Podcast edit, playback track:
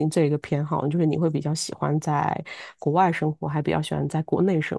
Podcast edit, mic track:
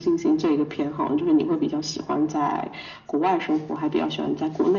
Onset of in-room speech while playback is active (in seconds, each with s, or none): none